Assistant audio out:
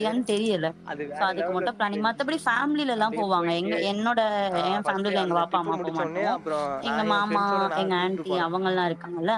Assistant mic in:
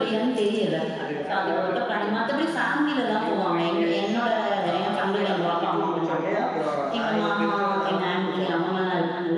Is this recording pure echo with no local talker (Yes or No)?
Yes